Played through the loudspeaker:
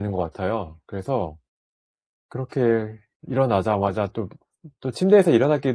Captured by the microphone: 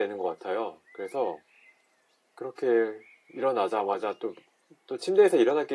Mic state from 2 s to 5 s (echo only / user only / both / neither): echo only